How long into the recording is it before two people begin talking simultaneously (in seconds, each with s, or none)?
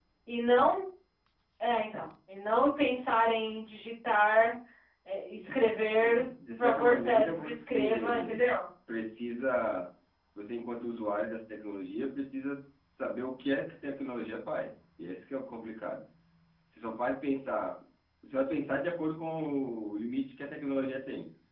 6.0 s